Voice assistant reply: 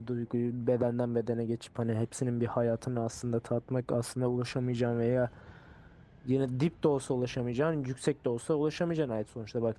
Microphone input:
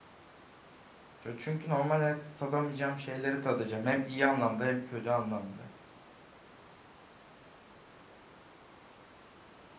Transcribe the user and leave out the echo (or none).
Çö- Çünkü normal hayatta tadamayacağım şeyleri tadacağım. Hem iyi anlamda hem kötü anlamda.